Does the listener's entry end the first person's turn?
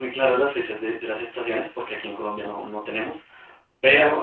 No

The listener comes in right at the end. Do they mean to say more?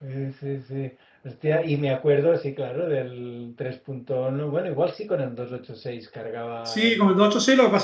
Yes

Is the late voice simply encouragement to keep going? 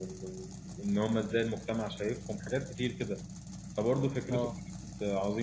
Yes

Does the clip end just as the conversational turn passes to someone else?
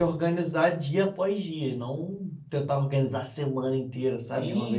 Yes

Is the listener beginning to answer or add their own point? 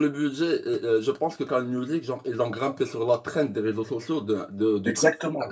Yes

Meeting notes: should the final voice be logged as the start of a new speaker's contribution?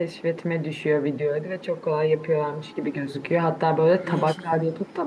No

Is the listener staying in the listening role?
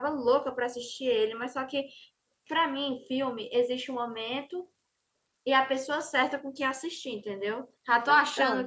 Yes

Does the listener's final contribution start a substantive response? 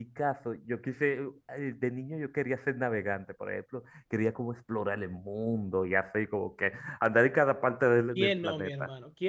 Yes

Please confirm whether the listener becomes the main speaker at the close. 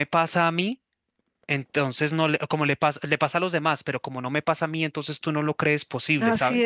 Yes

